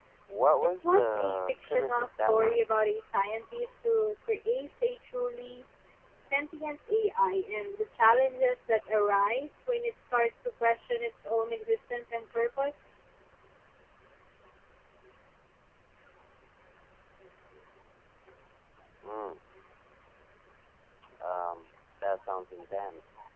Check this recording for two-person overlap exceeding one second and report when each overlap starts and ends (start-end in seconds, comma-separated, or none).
0.6-2.6